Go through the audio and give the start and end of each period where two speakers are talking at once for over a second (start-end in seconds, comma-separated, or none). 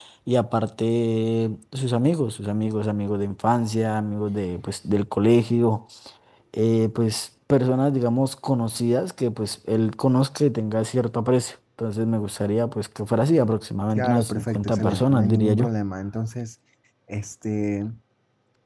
13.9-15.7